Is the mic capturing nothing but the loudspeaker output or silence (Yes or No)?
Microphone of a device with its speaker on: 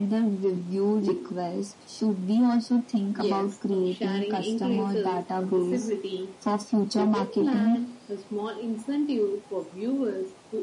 Yes